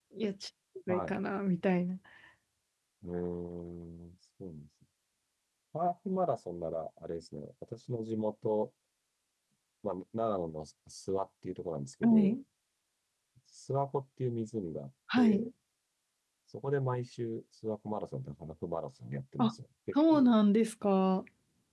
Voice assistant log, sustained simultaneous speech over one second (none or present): none